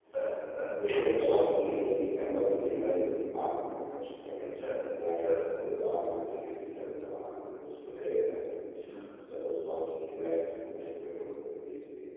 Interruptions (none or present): present